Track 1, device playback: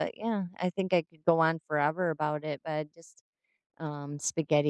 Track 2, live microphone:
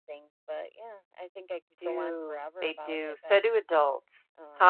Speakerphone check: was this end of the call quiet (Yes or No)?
No